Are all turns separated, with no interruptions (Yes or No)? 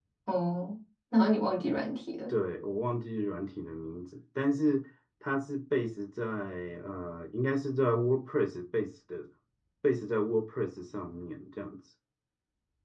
Yes